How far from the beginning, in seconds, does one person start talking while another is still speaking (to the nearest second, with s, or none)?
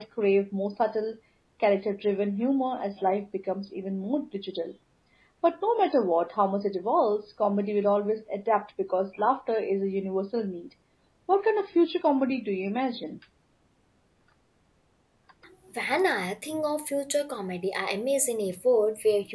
none